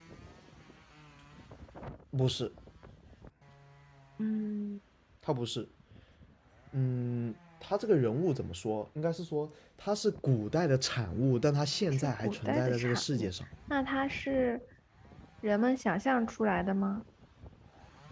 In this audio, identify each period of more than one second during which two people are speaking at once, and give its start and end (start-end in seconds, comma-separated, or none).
11.9-13.3